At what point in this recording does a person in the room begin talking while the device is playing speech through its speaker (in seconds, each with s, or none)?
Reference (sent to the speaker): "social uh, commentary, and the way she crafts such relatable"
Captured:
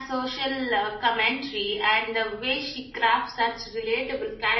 none